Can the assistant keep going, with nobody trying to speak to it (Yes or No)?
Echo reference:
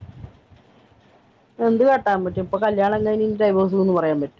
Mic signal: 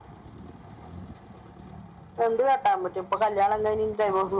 Yes